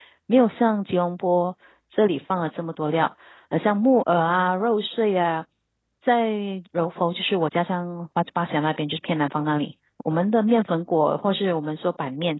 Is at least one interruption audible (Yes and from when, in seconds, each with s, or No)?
No